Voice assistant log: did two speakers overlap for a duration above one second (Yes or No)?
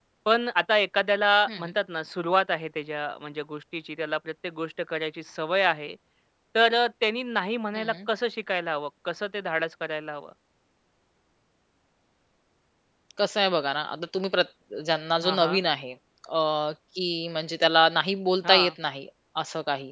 No